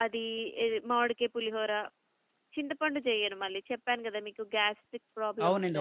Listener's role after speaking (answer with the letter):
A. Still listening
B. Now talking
B